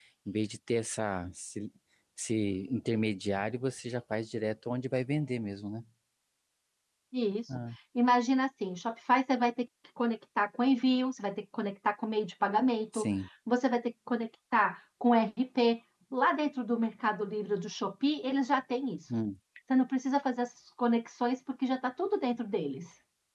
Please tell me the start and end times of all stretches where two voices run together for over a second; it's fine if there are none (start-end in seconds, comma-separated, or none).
none